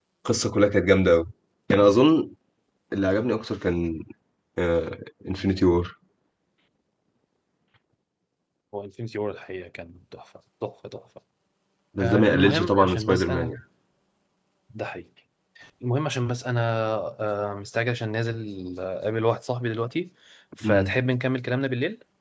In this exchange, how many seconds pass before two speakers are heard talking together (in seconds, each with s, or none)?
12.0 s